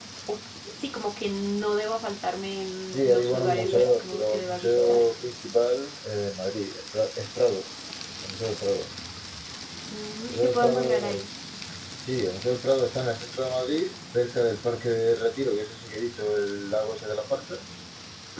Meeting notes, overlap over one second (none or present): present